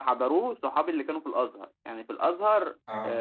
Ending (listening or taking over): listening